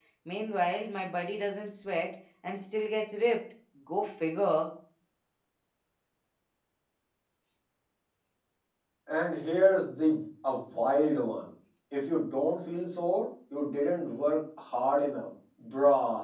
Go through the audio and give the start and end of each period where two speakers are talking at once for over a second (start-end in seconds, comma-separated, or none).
none